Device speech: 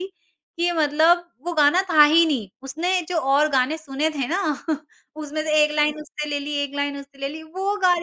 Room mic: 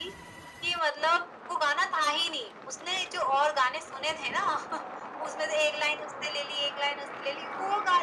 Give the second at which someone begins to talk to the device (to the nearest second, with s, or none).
none